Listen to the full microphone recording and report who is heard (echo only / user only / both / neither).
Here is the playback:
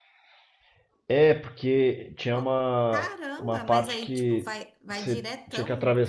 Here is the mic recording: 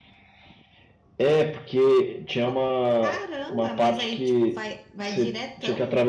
echo only